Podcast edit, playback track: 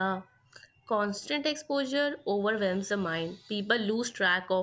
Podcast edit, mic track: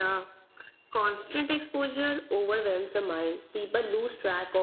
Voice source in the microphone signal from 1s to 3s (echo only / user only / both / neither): echo only